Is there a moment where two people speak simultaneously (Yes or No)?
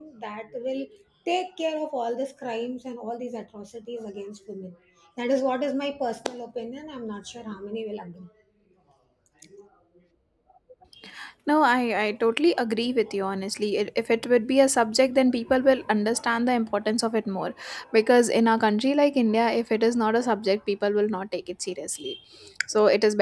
No